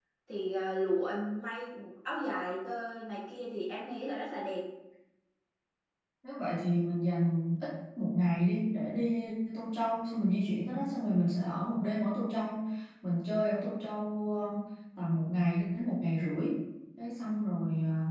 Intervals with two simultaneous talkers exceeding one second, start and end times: none

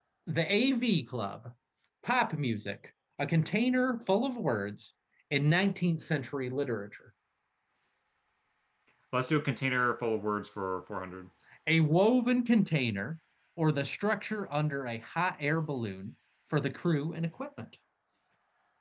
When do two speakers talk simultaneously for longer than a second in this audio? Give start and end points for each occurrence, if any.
none

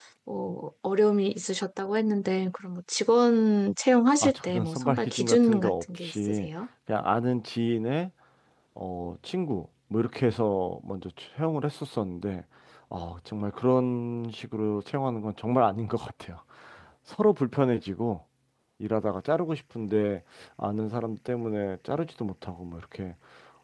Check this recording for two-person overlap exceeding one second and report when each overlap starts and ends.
4.2-6.5

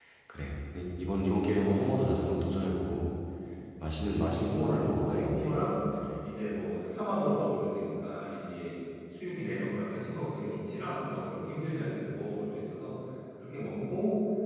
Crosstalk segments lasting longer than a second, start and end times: 4.1-5.6

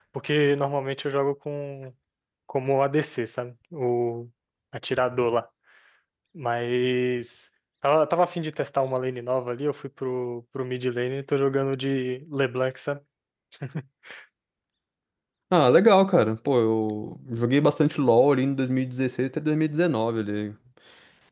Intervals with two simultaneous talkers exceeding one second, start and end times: none

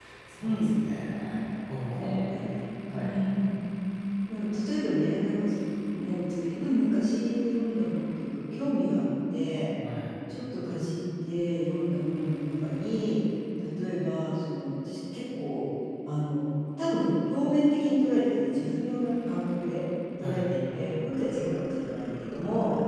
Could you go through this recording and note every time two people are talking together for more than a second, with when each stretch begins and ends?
none

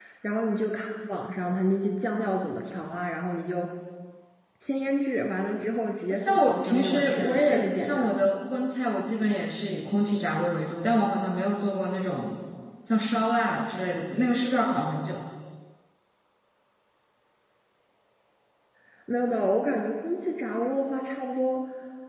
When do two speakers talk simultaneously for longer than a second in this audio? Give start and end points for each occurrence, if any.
6.1-8.1

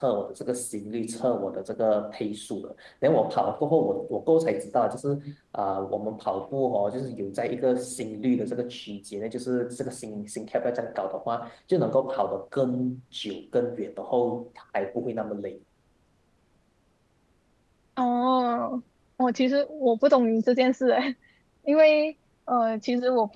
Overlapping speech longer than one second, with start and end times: none

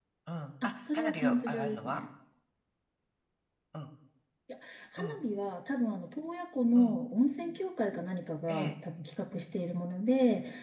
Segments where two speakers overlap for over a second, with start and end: 0.6-2.0

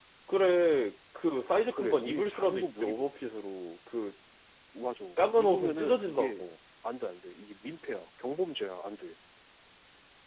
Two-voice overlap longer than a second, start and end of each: 1.7-3.0, 5.2-6.4

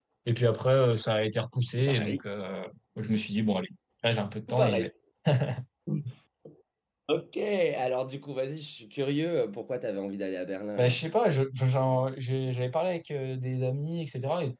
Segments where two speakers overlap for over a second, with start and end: none

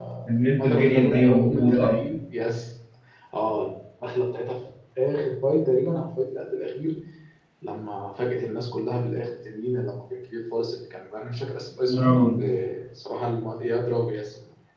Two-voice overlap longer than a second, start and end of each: 0.6-2.0

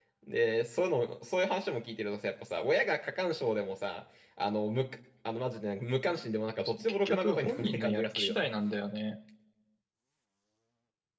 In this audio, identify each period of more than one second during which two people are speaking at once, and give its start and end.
6.7-8.5

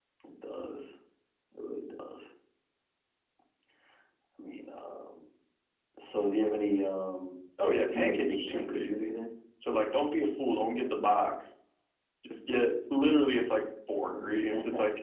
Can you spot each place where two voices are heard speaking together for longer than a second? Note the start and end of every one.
7.9-9.1

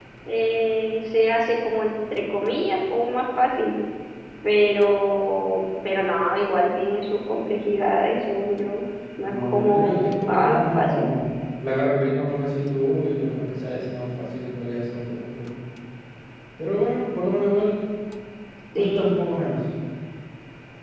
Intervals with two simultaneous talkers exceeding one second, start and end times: 9.3-11.1

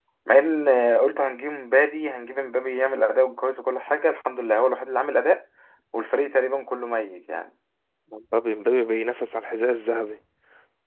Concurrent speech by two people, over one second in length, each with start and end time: none

